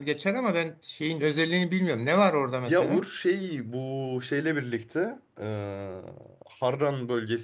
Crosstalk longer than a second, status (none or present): none